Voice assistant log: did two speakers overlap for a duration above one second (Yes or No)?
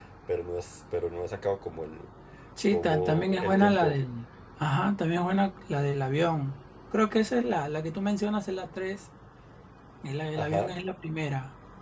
Yes